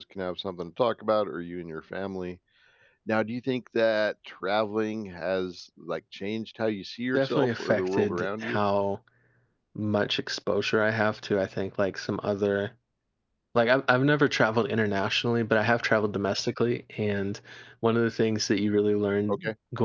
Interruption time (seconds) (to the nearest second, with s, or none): 7 s